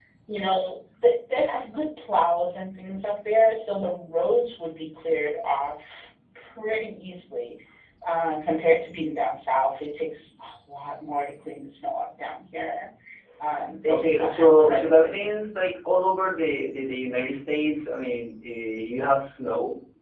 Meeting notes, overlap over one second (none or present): present